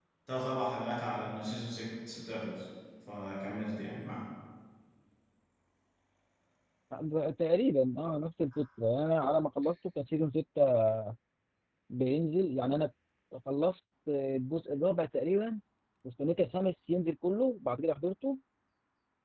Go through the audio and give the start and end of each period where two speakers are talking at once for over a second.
none

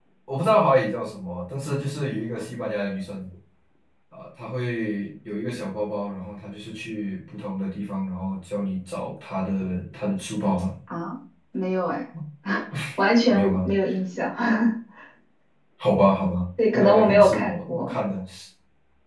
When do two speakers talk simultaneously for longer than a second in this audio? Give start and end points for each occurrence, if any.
16.7-17.9

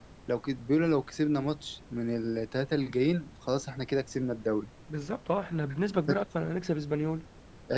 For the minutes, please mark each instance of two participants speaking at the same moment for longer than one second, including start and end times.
none

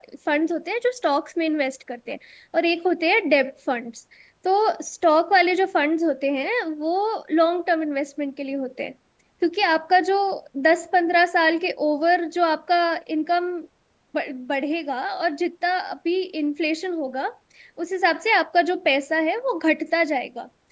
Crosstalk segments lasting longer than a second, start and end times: none

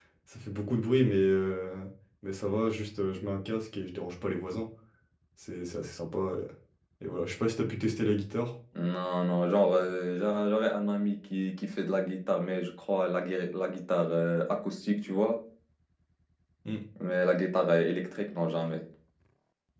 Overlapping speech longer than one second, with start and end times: none

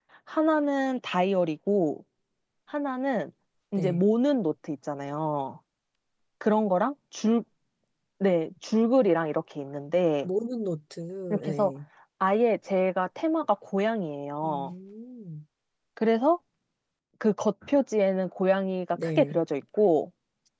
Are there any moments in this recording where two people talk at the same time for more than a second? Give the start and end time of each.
none

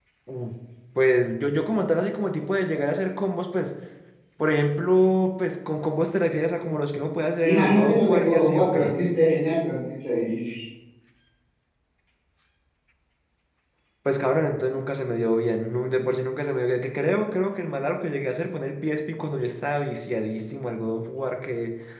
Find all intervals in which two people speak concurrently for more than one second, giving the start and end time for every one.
7.4-9.0

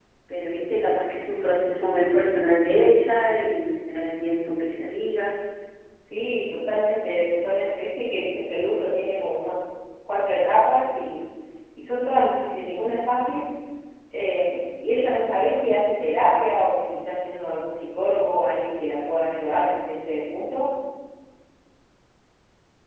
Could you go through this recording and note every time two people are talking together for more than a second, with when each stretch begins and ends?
none

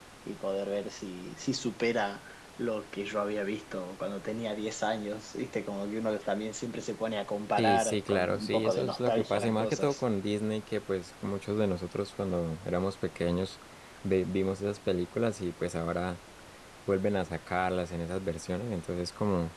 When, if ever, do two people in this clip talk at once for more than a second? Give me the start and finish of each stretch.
7.6-10.0

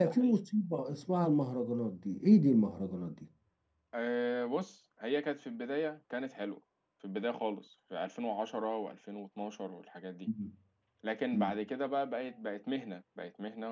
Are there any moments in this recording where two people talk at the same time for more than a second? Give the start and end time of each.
none

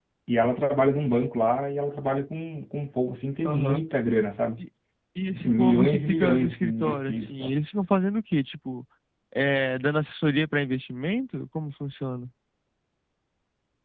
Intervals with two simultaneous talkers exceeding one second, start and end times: 5.3-7.6

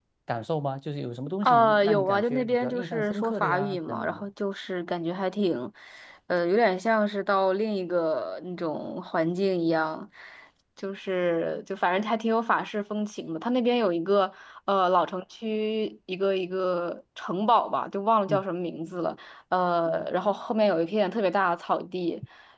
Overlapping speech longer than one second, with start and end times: 1.4-4.2

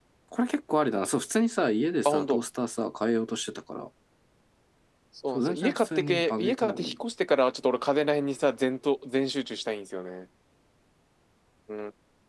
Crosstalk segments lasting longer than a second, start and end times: 5.3-6.9

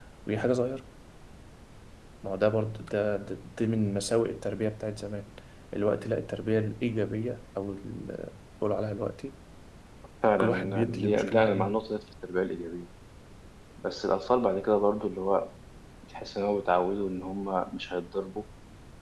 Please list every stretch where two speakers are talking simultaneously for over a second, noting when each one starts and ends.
10.4-11.8

